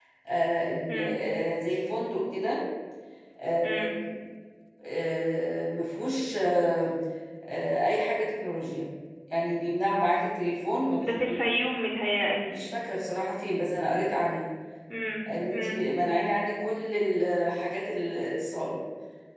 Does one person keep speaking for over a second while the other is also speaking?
No

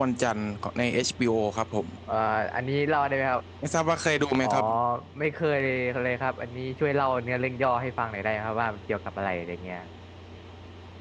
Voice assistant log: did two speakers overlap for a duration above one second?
No

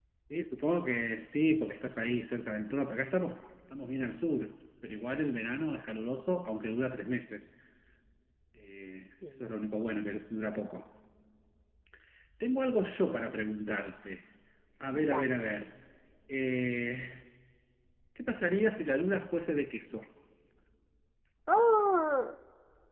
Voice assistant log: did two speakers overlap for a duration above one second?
No

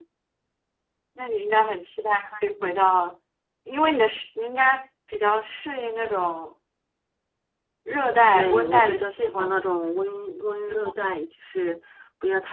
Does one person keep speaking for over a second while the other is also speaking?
Yes, from 8.3 s

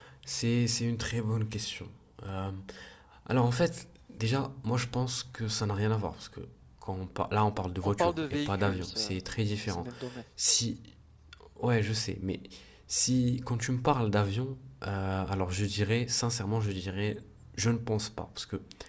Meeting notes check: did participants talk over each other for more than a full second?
Yes, from 7.8 s

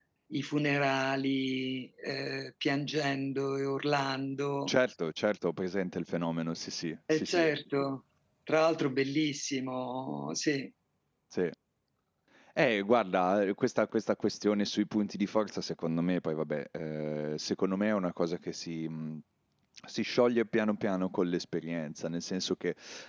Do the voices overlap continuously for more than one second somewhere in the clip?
No

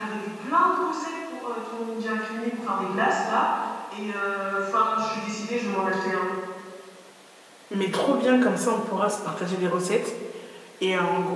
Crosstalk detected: No

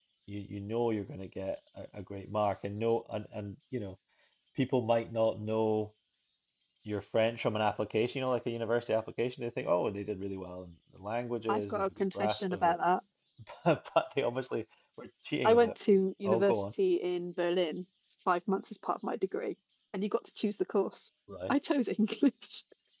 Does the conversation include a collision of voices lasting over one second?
Yes, from 11.5 s

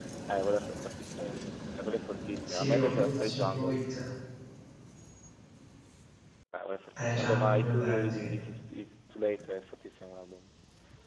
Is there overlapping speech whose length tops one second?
Yes, from 2.5 s

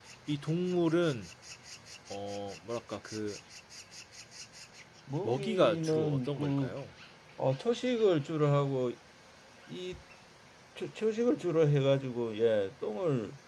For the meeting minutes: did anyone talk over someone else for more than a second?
Yes, from 5.2 s

